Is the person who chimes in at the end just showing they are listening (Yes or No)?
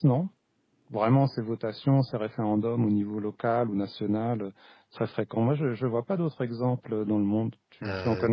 No